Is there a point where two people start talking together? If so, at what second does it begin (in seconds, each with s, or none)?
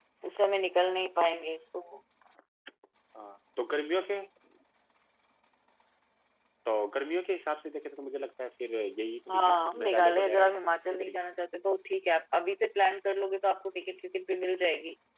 9.3 s